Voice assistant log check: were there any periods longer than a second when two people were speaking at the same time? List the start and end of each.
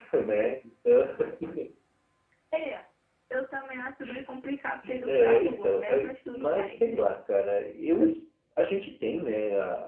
5.0-6.8

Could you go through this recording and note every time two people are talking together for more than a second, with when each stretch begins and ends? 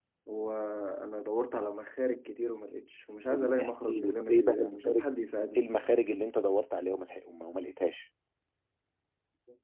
3.2-5.0

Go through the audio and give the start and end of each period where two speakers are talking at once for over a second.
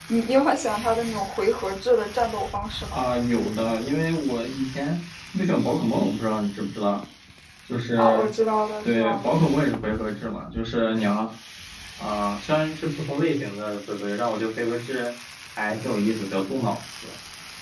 none

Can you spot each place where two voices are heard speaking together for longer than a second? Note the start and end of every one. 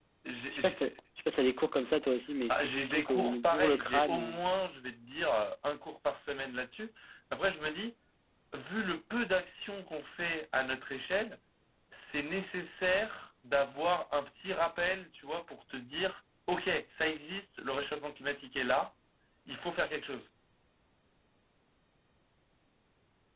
2.5-4.4

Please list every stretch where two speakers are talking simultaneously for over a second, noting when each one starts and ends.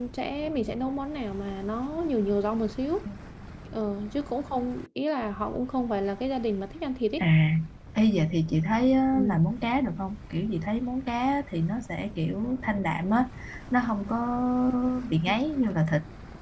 none

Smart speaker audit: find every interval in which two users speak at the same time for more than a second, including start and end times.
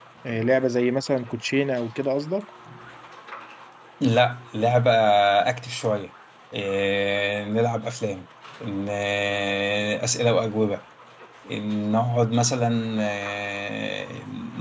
none

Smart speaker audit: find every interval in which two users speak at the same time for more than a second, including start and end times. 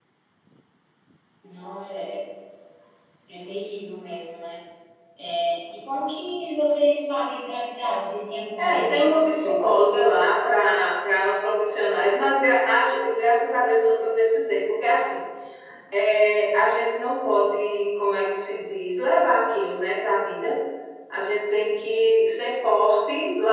8.6-10.0

